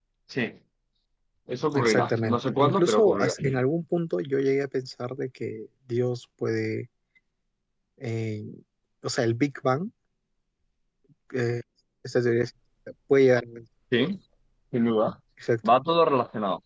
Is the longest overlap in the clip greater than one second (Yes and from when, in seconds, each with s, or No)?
Yes, from 1.7 s